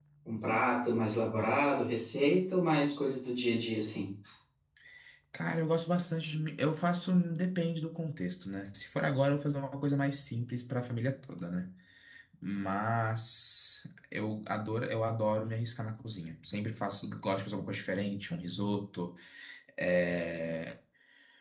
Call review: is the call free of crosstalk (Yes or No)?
Yes